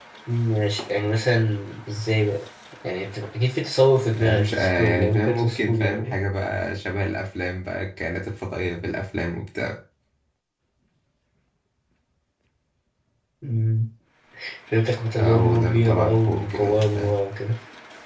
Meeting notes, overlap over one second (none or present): present